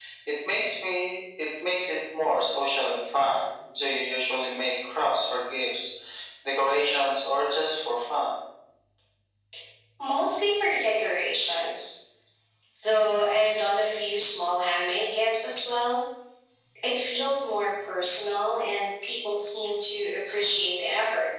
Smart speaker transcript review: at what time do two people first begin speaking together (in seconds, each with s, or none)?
none